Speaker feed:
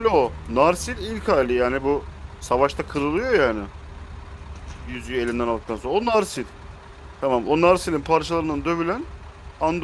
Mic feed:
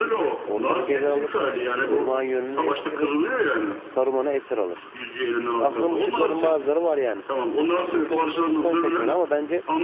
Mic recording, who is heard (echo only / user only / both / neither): both